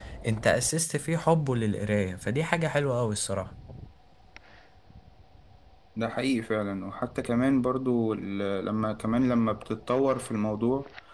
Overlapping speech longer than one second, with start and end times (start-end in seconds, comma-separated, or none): none